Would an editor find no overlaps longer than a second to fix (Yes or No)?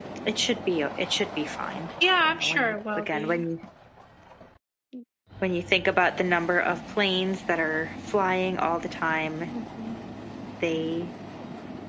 No